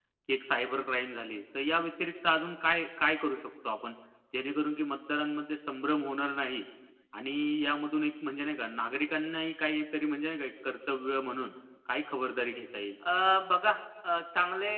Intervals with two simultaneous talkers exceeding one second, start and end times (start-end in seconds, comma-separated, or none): none